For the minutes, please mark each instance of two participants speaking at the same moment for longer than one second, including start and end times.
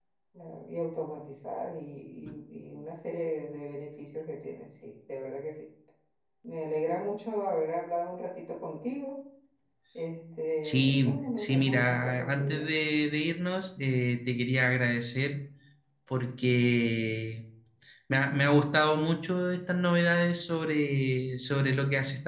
10.6-12.6

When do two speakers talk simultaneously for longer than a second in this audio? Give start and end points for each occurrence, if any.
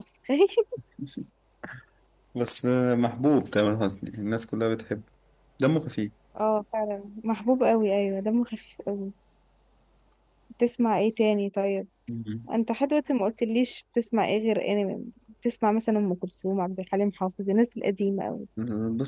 none

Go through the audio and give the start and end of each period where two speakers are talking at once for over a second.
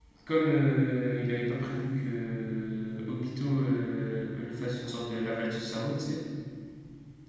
none

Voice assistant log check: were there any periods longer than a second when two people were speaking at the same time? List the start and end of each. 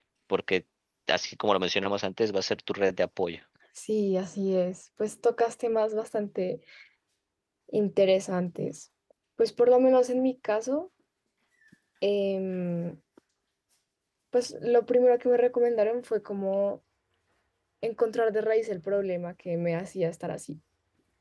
none

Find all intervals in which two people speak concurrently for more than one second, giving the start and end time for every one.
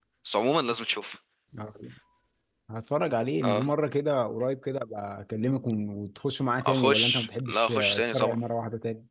6.6-8.4

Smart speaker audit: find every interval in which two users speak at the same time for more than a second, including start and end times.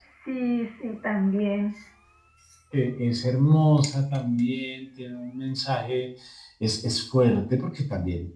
none

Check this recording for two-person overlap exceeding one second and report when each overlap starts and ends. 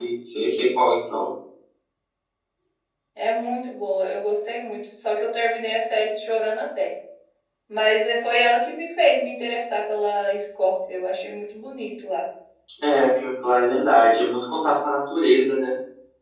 none

